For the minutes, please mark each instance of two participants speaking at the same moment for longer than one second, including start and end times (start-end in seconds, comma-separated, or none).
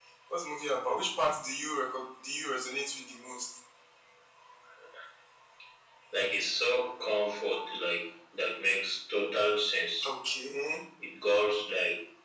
none